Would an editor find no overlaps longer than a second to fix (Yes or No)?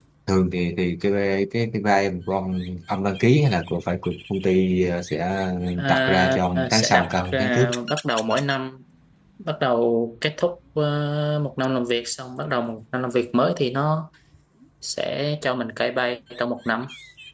No